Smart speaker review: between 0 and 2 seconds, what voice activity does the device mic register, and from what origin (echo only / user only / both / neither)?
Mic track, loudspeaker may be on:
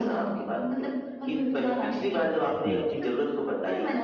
echo only